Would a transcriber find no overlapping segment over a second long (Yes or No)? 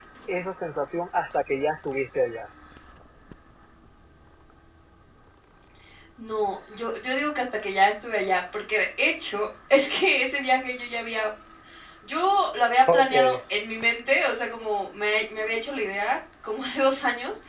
Yes